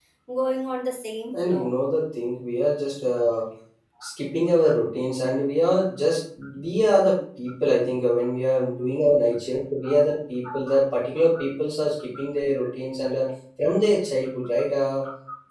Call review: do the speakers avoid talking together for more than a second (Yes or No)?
Yes